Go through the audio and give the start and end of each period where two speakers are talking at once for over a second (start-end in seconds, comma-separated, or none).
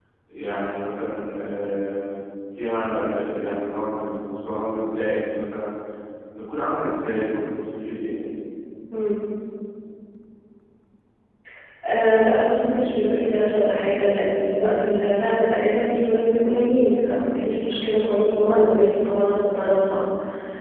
none